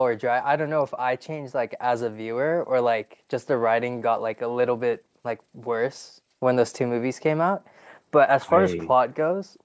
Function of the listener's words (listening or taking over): listening